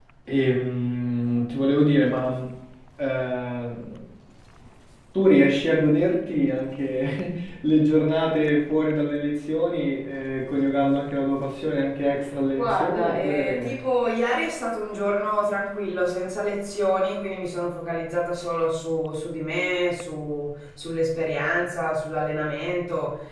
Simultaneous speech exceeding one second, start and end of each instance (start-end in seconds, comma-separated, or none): 12.6-13.8